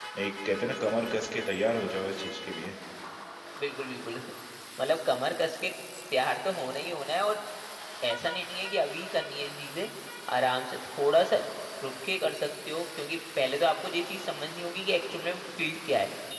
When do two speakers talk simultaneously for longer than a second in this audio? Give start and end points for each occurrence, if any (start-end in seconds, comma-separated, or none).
none